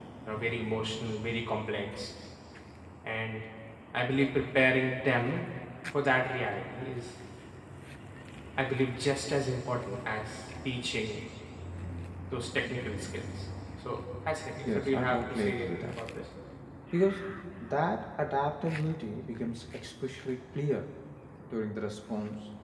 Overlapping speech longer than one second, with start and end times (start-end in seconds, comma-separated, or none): 14.8-16.0